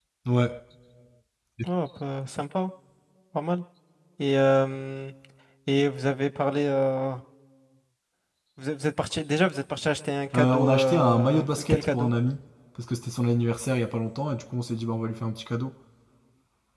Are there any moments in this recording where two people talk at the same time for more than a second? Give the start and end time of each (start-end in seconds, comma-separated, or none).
10.3-12.1